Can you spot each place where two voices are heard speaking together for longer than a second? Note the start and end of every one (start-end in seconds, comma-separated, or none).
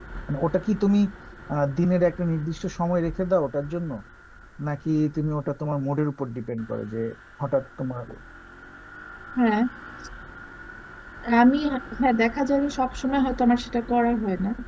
none